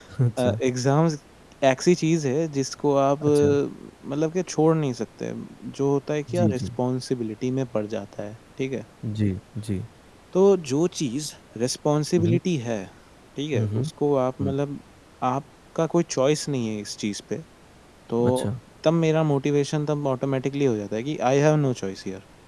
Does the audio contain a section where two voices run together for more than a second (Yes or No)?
No